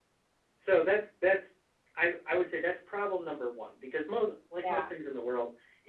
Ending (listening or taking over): listening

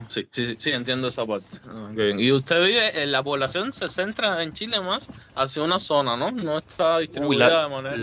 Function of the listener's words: taking over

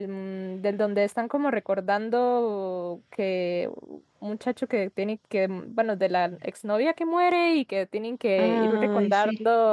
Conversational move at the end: listening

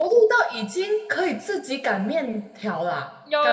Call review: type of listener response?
taking over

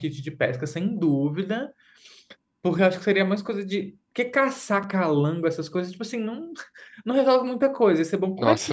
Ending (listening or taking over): listening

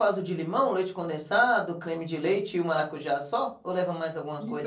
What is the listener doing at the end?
taking over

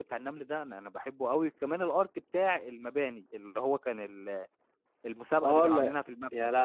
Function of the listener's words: taking over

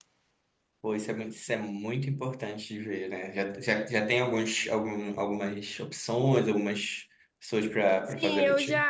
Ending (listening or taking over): taking over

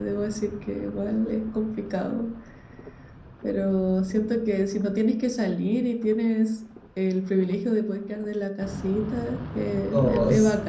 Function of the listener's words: taking over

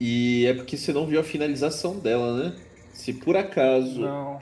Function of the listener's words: listening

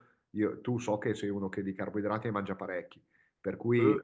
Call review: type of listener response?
listening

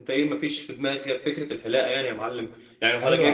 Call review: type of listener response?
taking over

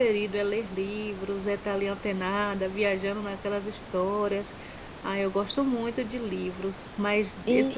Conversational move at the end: listening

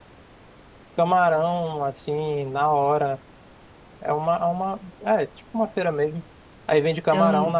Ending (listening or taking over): listening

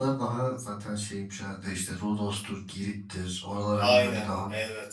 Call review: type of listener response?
taking over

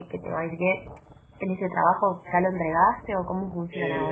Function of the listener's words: taking over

